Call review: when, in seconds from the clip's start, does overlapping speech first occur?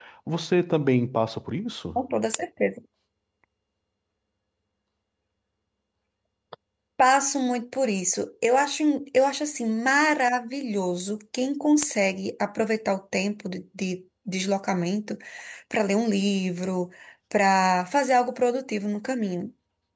none

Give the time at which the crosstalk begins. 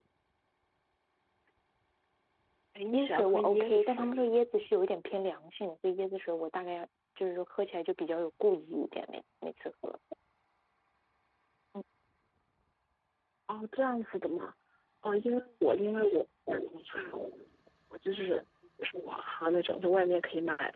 2.9 s

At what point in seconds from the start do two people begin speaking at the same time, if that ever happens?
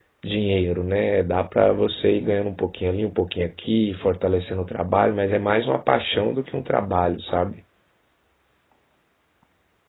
none

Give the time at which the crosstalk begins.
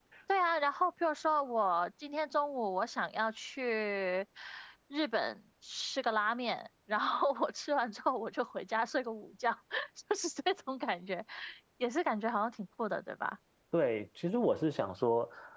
none

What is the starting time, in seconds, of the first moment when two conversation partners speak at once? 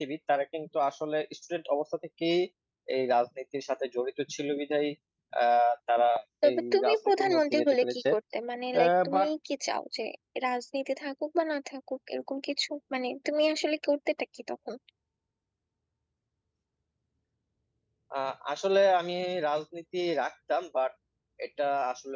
6.5 s

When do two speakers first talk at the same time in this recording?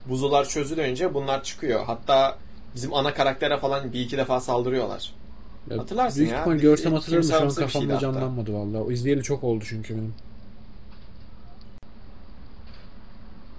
5.8 s

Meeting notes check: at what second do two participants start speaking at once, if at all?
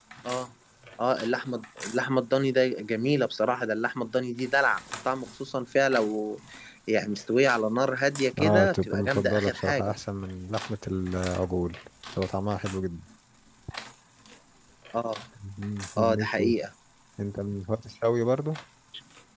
8.4 s

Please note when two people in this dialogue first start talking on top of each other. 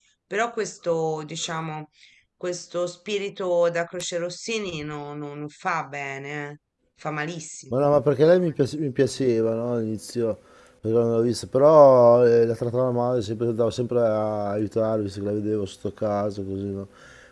none

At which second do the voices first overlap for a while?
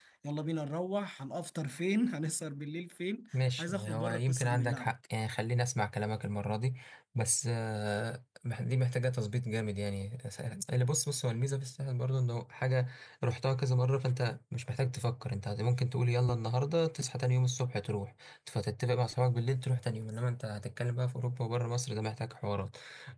3.6 s

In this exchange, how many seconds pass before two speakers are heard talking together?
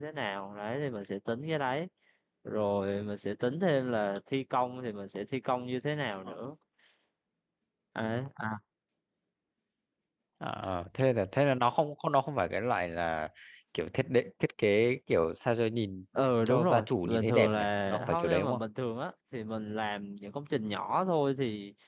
16.5 s

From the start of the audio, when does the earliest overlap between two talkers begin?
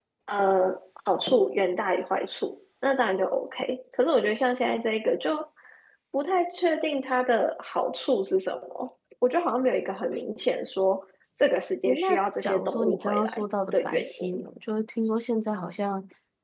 11.8 s

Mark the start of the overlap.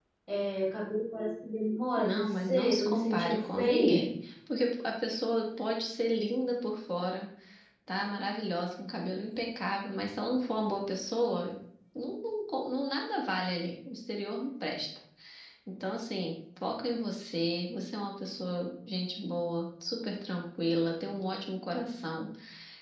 2.0 s

